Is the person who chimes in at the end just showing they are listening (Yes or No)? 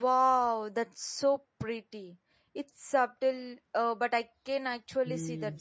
No